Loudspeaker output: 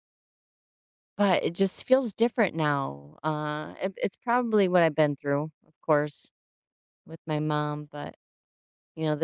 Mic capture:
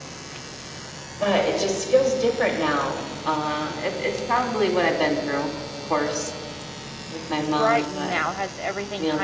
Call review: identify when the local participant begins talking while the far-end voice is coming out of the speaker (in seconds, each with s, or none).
7.4 s